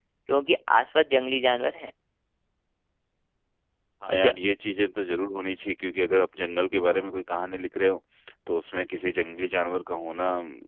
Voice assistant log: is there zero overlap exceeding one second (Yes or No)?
Yes